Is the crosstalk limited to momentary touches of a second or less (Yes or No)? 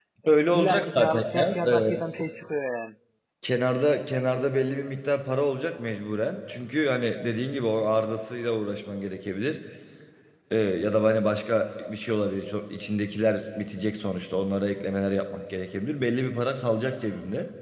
No